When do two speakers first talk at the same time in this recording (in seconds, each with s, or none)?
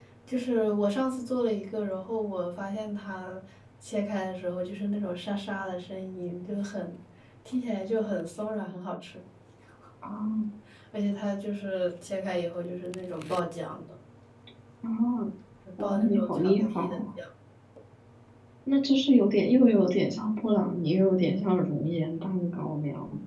15.8 s